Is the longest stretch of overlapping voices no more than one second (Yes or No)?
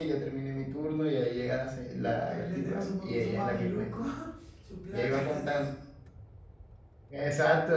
No